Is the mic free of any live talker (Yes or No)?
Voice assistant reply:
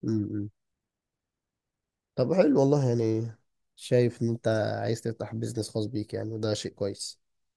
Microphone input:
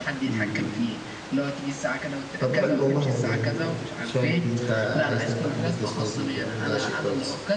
No